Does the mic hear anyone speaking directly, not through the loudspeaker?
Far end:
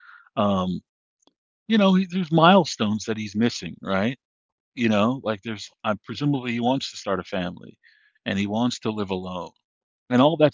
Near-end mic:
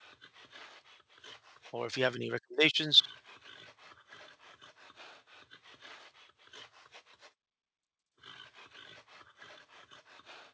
Yes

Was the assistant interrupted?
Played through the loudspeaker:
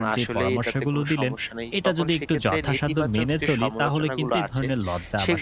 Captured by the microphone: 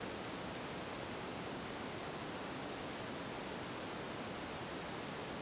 No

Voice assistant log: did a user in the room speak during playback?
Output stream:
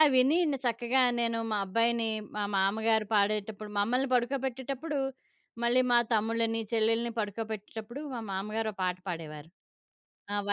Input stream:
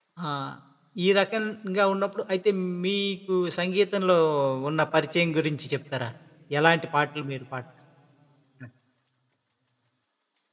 Yes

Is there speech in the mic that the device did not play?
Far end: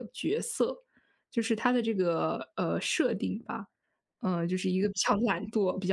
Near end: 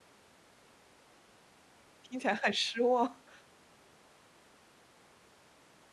Yes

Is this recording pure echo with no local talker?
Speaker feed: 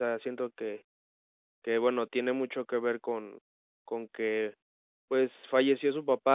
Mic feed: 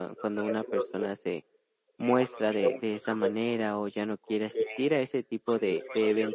No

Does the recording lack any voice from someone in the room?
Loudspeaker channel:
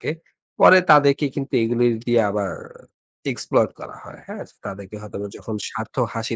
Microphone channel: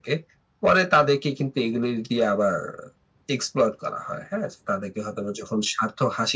Yes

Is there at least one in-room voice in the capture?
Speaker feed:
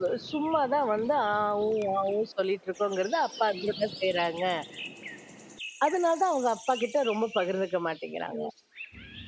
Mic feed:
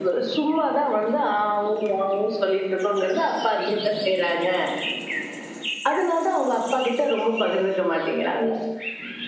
No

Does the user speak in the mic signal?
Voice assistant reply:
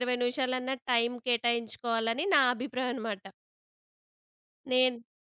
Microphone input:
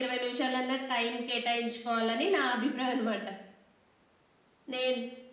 No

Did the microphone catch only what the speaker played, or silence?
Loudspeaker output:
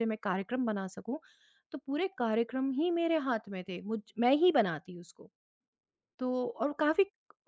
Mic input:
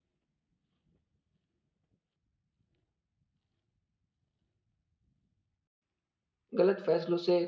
No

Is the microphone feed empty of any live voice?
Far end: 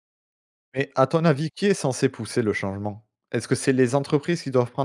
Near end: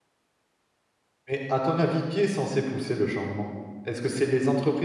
Yes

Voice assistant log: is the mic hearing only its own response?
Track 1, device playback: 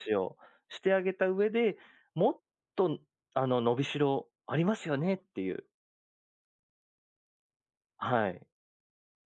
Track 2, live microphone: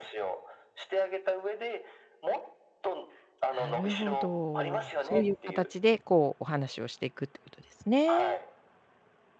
No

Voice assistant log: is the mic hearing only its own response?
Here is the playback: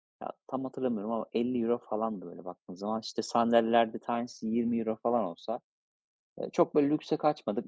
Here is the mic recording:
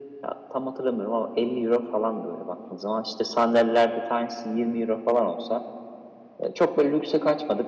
Yes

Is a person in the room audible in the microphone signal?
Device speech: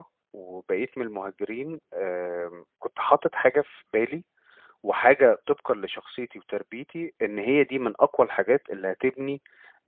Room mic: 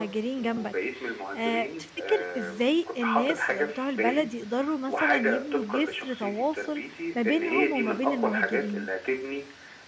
Yes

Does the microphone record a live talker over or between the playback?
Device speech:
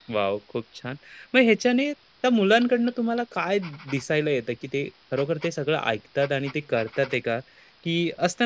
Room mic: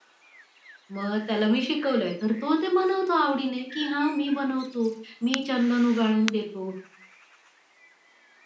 Yes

